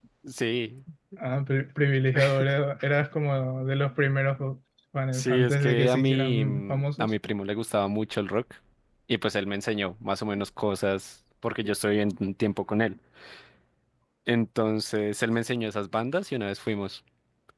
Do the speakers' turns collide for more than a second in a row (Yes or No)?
Yes